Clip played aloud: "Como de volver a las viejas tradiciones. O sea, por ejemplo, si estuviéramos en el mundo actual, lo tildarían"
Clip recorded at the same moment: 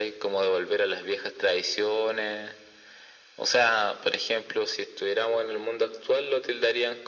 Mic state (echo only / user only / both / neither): echo only